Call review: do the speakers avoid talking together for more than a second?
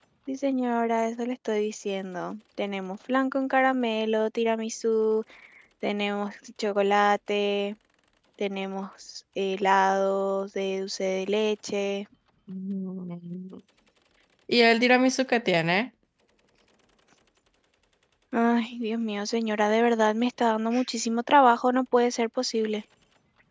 Yes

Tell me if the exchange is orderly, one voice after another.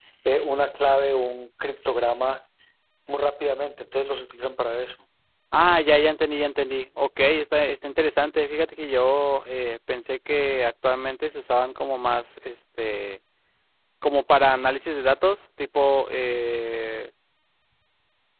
Yes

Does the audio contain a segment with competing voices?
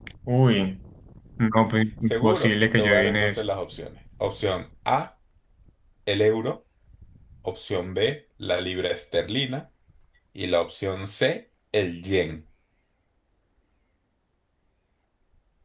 Yes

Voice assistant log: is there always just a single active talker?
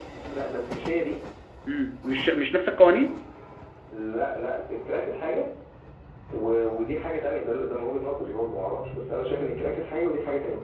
Yes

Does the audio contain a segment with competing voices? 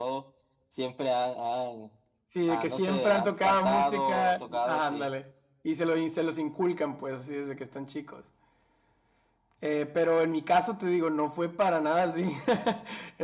Yes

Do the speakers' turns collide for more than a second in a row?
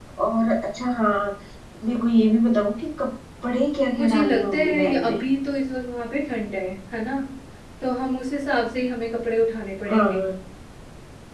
Yes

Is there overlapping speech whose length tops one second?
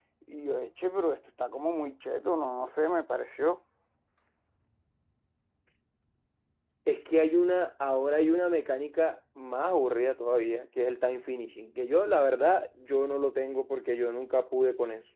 No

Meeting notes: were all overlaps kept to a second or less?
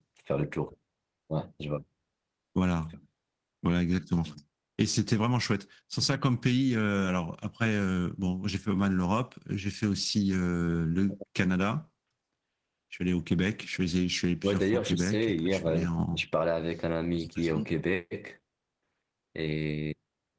No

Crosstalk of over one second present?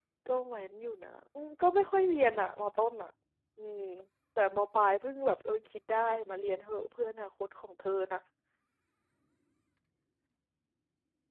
No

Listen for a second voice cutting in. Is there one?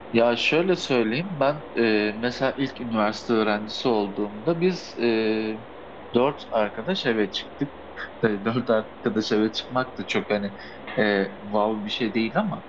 No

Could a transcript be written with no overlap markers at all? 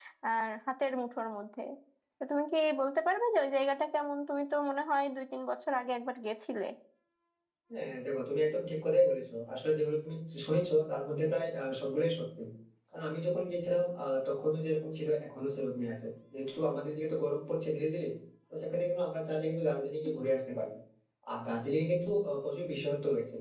Yes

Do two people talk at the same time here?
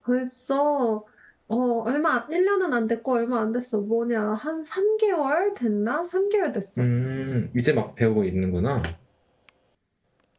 No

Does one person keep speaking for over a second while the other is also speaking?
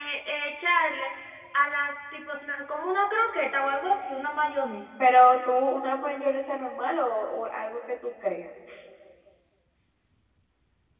No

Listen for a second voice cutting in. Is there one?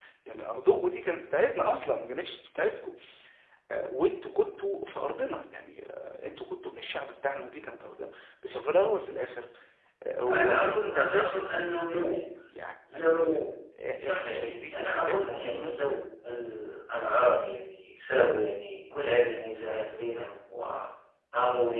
Yes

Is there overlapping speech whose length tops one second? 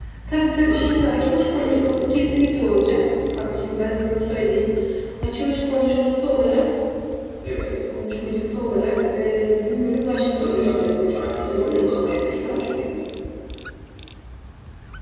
Yes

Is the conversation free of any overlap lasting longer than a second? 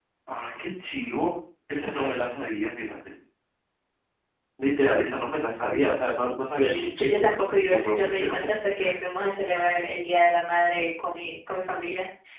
No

